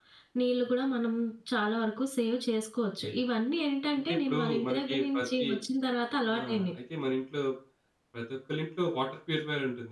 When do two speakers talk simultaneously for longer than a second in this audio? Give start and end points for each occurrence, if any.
4.1-5.5

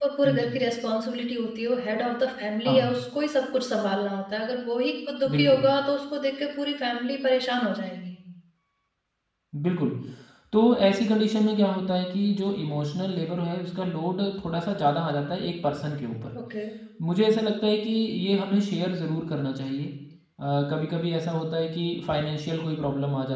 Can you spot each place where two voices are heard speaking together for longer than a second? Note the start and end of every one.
none

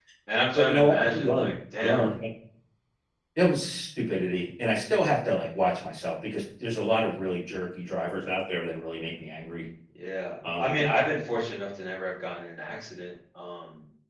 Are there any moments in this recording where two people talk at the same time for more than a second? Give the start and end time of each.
0.6-2.1

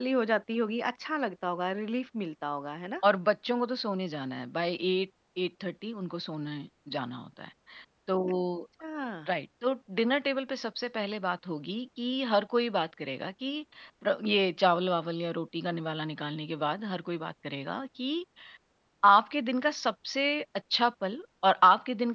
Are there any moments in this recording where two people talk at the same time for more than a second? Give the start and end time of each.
none

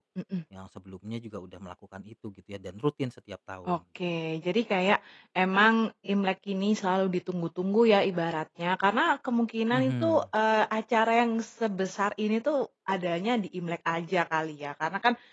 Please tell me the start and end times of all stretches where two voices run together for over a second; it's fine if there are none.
none

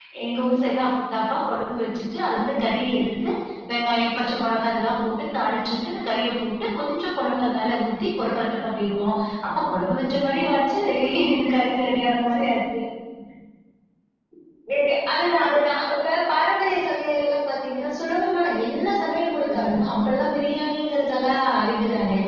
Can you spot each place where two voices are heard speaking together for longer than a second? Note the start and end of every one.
none

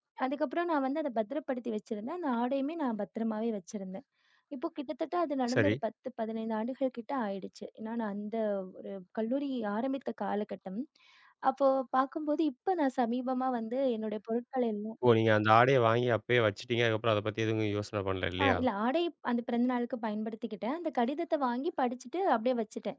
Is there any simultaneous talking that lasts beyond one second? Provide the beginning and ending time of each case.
none

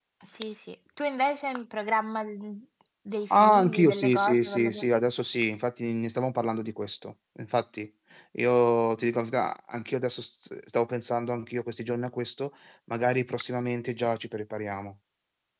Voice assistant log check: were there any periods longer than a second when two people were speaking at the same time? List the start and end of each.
3.3-4.8

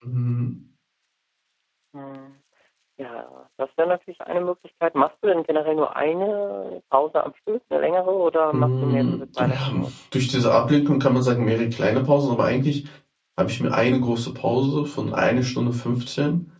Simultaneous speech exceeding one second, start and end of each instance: 8.5-9.8

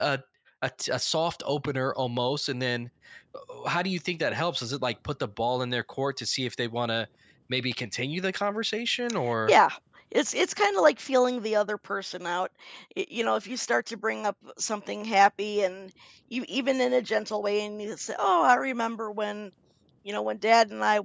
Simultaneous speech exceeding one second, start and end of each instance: none

